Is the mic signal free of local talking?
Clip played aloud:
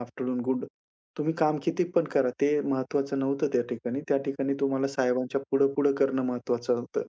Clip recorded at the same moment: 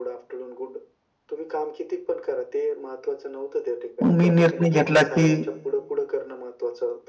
No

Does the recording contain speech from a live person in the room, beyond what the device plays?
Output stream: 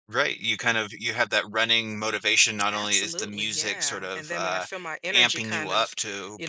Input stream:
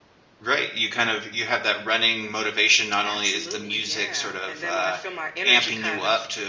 No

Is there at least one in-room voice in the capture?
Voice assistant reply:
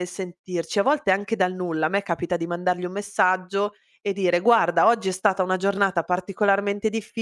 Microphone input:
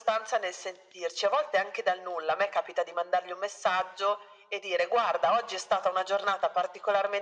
No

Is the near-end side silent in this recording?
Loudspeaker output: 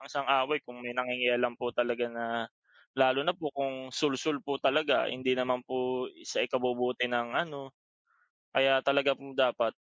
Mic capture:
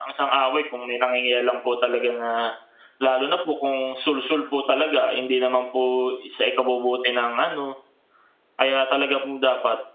Yes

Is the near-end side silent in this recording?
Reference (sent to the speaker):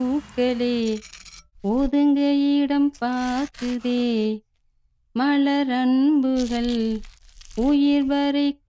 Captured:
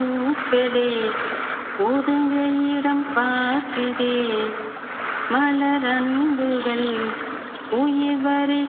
Yes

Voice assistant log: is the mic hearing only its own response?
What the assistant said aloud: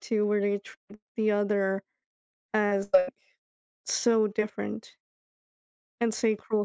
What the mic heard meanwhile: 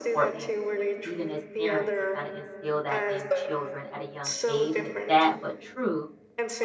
No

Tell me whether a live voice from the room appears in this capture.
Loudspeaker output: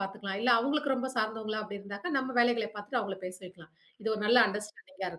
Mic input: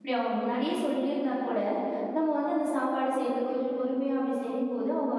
Yes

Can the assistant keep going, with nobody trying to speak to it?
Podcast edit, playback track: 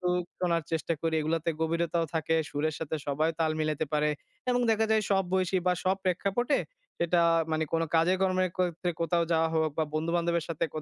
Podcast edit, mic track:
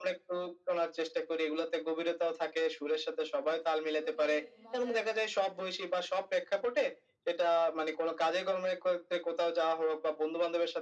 No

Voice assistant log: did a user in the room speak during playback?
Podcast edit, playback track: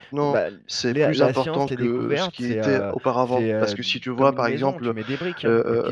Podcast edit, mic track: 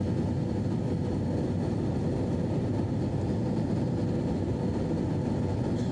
No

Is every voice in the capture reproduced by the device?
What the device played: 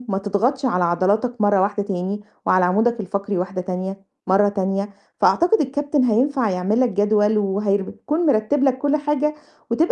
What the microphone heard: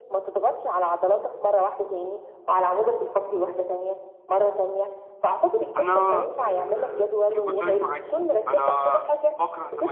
No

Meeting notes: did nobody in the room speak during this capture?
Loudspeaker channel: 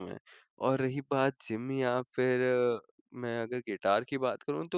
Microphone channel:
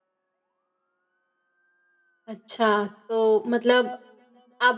No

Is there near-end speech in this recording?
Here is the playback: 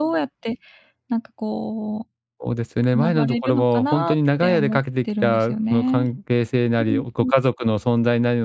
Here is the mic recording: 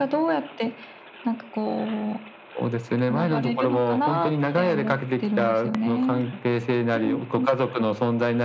No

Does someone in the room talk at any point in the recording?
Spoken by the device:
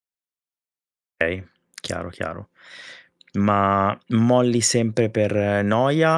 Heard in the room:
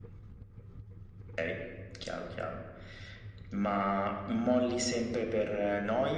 No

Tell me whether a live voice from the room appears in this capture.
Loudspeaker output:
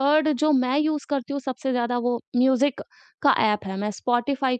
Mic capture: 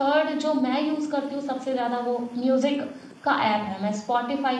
No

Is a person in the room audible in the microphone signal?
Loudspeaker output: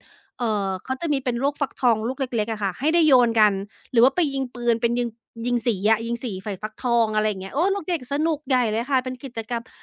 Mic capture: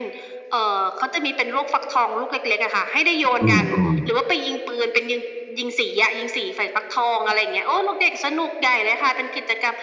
Yes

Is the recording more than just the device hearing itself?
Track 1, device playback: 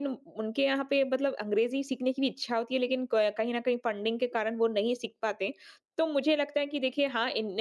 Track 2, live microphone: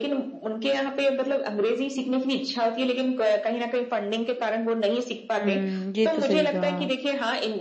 Yes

